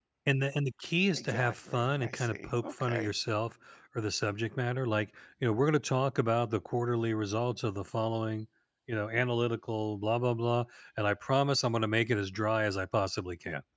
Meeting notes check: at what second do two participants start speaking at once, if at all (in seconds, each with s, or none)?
1.1 s